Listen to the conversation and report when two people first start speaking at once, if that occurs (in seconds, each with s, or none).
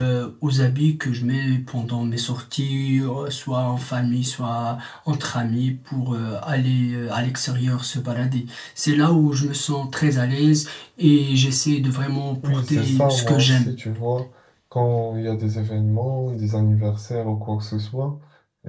12.4 s